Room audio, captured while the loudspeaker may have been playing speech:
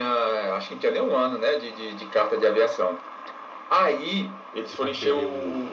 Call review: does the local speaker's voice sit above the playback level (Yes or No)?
No